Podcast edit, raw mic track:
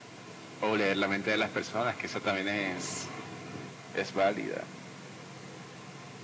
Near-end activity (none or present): none